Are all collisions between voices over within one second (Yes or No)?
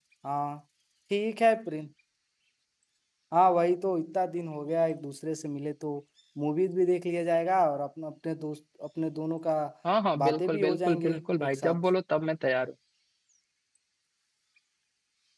No